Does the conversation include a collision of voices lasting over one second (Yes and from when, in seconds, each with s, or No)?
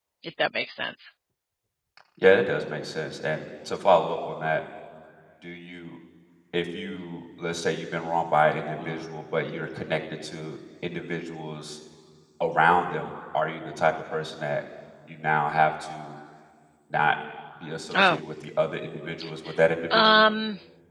No